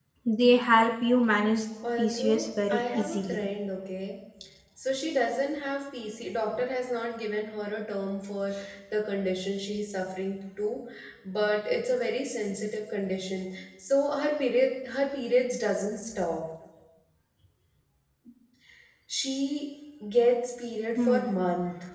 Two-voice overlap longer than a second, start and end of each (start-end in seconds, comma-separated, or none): 2.0-3.4